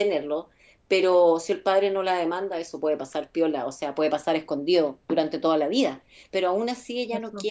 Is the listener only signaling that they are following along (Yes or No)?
Yes